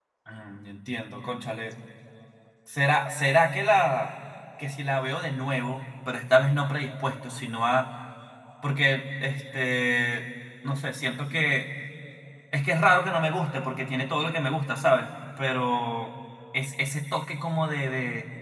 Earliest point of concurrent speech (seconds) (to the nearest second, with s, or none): none